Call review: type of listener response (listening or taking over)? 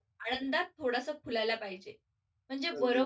listening